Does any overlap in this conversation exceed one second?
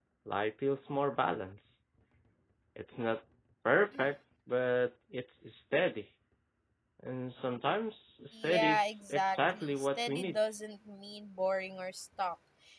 Yes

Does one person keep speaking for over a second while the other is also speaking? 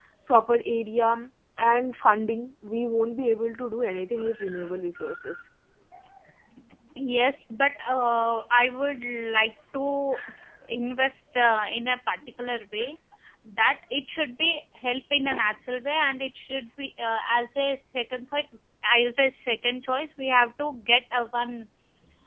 No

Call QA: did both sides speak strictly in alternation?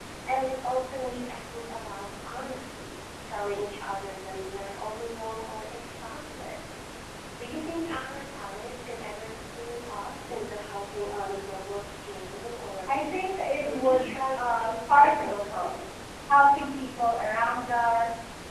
No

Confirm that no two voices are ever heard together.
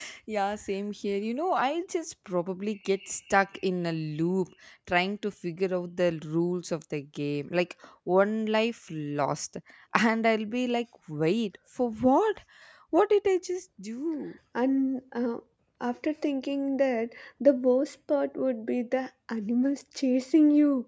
Yes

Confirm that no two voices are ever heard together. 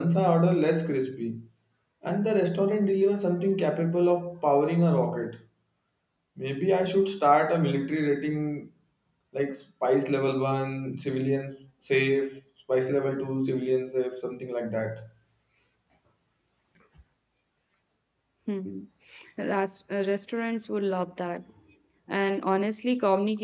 Yes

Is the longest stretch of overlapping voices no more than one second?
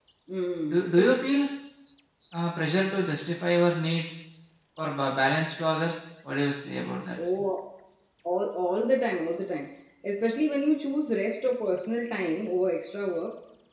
Yes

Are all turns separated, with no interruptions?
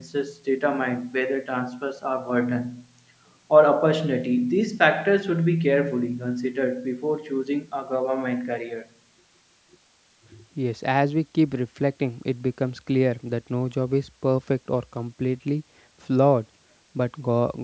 Yes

